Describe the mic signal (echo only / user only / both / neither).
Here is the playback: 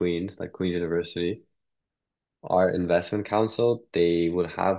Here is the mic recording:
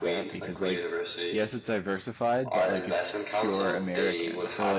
both